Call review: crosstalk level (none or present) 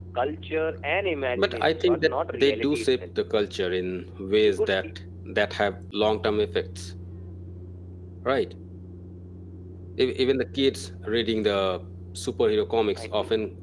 present